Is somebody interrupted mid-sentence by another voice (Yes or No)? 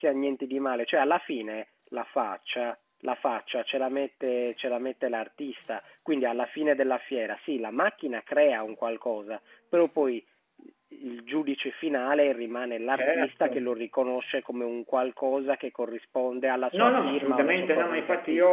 Yes